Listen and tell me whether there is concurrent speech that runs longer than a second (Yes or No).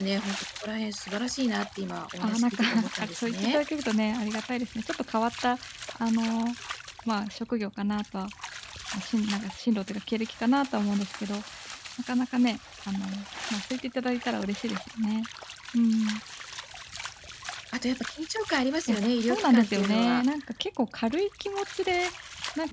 Yes